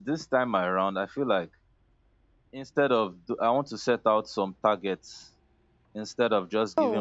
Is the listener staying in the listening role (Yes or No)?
Yes